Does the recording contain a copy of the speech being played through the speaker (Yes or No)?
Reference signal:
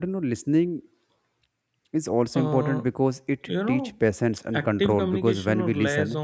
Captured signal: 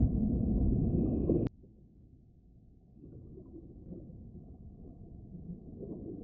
No